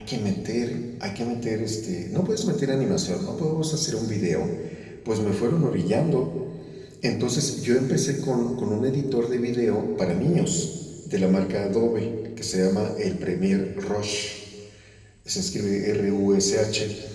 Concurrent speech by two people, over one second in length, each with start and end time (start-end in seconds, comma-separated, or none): none